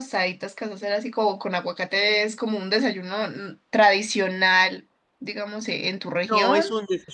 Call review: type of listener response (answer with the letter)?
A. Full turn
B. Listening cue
A